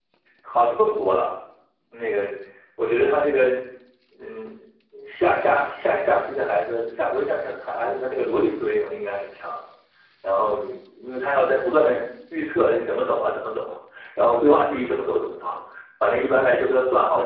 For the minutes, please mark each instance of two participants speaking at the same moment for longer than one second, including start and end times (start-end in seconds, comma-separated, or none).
none